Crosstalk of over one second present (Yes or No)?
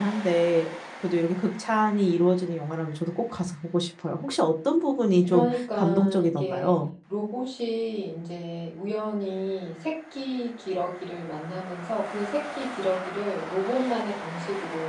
Yes